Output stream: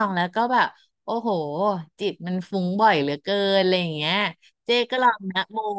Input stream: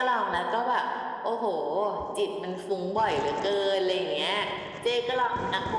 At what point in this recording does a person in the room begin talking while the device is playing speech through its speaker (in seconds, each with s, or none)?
none